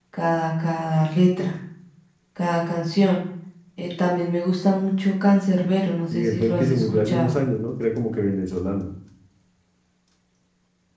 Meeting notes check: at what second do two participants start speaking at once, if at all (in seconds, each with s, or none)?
6.1 s